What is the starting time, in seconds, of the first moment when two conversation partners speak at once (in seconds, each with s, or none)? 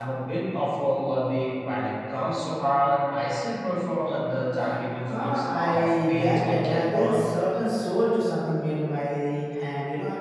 5.1 s